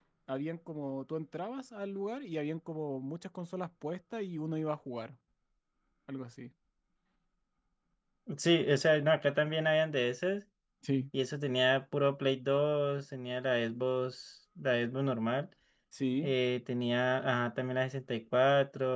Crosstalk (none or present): none